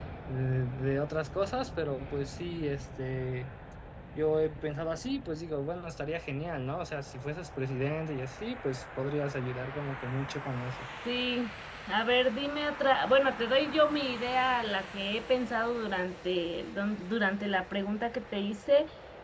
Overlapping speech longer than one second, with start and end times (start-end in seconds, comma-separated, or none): none